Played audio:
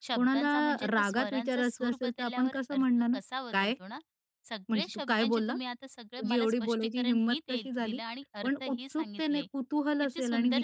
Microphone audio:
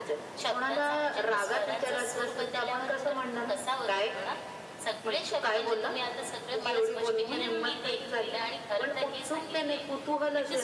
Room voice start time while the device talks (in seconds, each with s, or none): 7.2 s